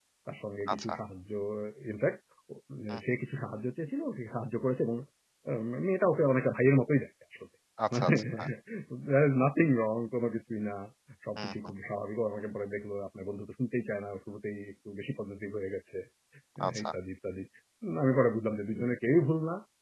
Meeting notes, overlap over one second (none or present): none